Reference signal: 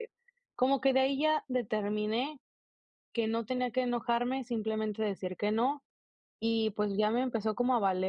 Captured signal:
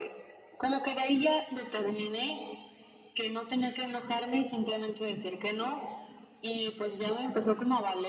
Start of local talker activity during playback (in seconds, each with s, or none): none